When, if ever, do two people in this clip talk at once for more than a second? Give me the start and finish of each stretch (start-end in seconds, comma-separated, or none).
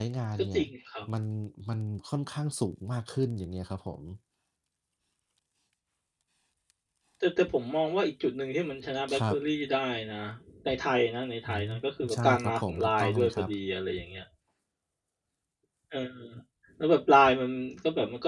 12.1-13.5